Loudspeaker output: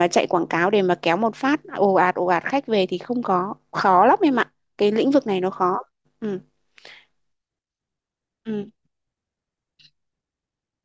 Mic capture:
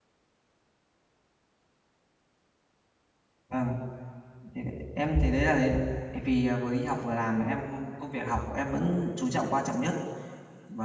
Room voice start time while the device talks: 3 s

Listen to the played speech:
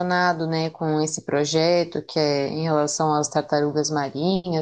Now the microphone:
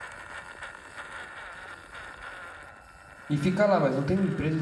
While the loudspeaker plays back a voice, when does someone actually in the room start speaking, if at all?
3 s

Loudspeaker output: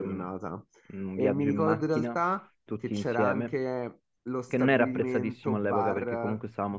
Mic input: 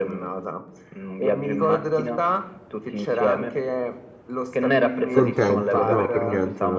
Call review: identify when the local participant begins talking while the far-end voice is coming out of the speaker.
5 s

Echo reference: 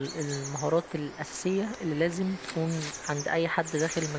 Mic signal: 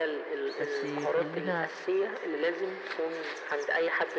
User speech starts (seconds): 1 s

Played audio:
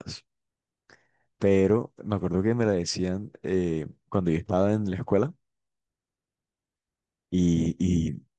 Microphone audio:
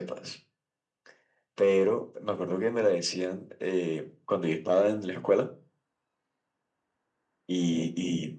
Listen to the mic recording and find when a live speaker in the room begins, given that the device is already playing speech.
none

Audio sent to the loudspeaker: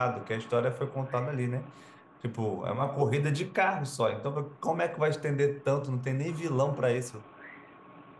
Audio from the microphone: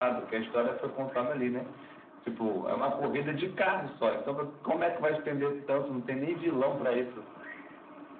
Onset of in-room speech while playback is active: none

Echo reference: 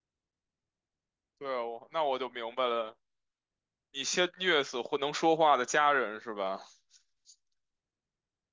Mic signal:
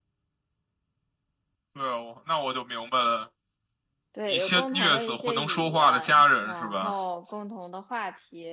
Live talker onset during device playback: 4 s

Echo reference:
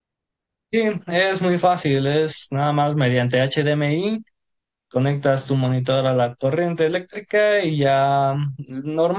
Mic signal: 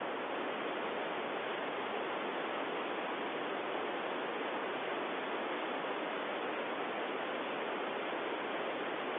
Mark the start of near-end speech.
none

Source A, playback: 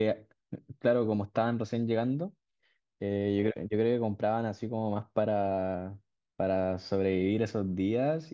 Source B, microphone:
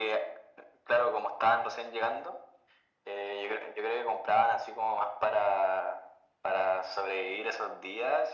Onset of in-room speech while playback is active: none

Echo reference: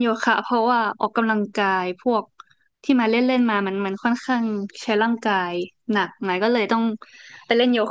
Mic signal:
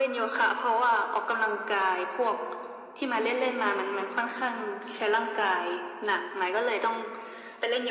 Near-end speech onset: none

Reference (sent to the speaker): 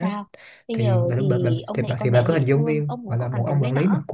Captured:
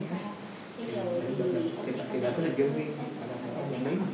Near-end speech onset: none

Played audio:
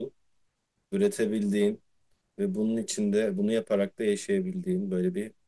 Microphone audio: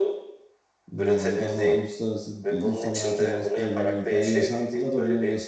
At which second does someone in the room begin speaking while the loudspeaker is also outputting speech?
1 s

